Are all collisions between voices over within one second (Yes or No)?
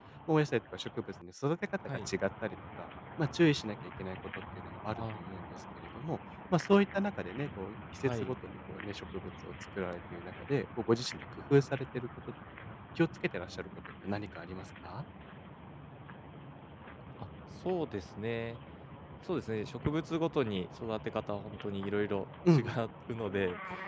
Yes